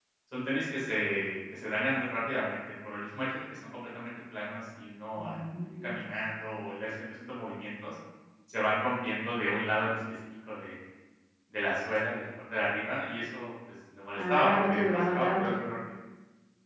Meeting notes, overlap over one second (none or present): present